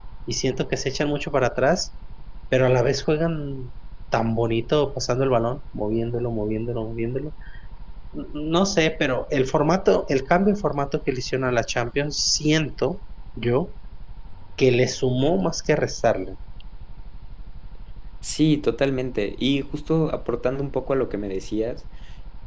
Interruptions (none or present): none